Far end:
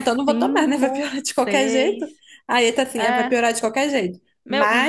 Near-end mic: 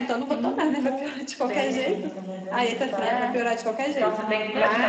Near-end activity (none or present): present